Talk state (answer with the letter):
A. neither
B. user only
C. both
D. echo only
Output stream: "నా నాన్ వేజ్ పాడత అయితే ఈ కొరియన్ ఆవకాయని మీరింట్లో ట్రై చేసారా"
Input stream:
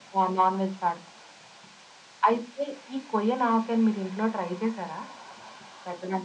D